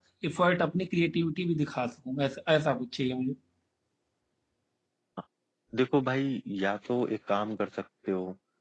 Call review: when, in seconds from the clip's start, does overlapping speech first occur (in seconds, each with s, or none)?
none